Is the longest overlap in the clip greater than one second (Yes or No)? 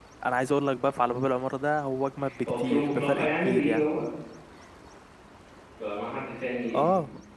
Yes